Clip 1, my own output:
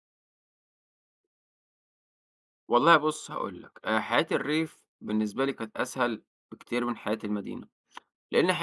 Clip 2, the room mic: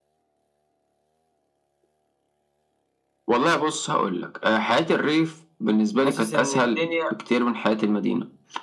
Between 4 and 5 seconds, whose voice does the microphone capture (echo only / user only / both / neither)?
echo only